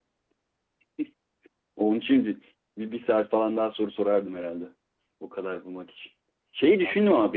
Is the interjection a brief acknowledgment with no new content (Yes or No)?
Yes